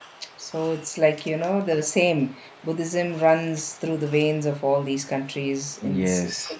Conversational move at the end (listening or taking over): taking over